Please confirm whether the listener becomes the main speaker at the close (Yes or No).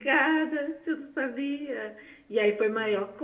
No